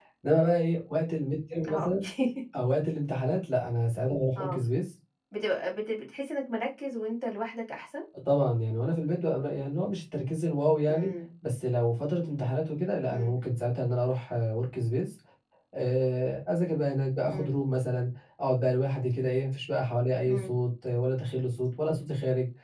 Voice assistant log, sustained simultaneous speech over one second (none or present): none